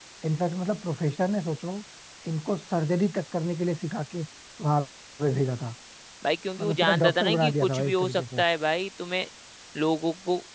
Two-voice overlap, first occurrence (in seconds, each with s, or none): 6.6 s